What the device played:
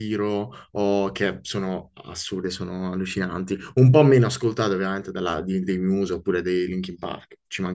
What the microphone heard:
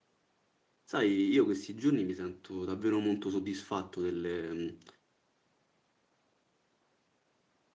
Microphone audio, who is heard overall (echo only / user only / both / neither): user only